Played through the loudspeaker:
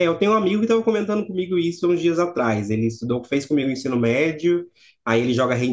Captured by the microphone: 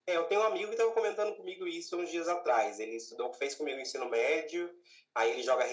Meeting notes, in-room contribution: none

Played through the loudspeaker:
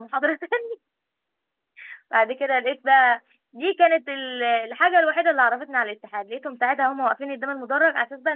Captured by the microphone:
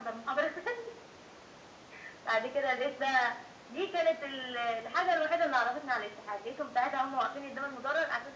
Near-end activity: none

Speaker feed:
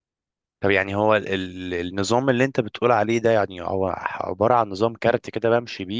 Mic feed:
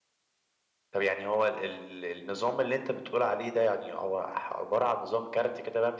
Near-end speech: none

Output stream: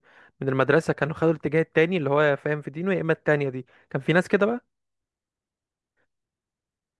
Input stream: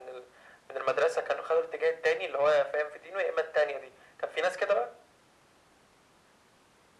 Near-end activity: none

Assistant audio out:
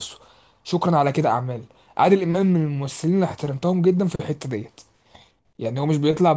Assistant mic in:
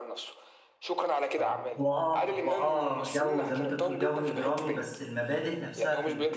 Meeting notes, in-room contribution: present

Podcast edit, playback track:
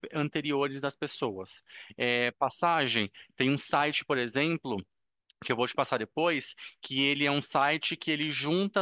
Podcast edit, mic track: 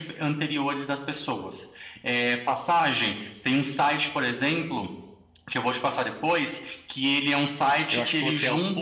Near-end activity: present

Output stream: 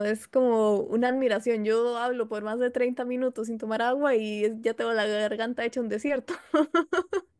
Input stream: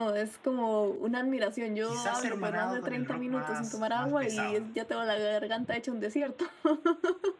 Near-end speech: present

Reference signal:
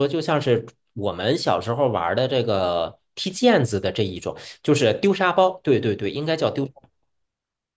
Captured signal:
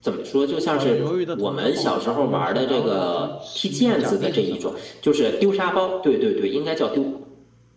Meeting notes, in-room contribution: present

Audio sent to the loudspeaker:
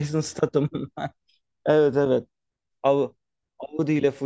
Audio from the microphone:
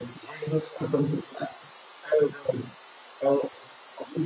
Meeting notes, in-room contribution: none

